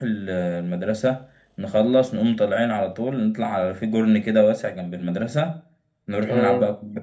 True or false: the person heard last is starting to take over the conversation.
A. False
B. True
A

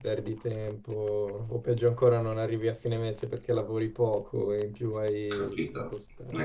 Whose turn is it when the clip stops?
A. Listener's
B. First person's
A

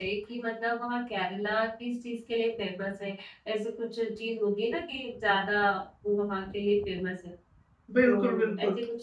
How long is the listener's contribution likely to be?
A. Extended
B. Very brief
A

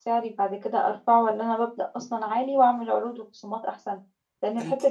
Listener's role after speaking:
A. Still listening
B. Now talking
A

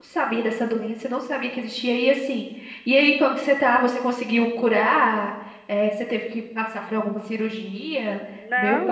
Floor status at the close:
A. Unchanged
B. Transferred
B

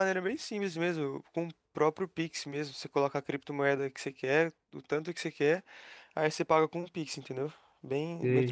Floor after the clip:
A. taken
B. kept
A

